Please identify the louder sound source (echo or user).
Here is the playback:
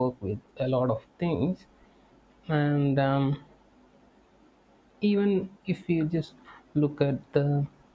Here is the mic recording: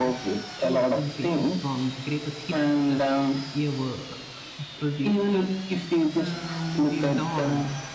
echo